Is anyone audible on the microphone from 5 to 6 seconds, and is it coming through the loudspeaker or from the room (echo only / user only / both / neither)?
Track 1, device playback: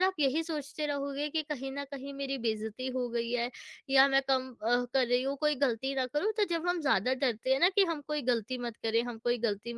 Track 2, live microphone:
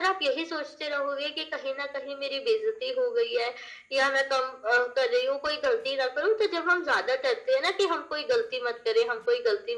echo only